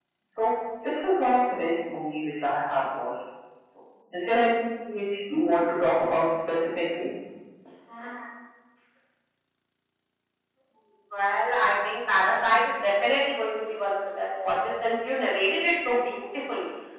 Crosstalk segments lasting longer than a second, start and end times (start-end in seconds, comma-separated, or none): none